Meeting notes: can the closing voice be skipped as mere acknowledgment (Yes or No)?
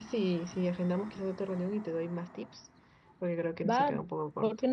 No